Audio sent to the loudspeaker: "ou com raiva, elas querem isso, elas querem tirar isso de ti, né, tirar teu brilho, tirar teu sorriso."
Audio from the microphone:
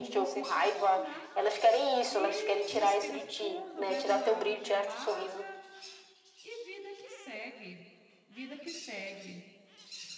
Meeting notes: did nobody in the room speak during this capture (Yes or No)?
No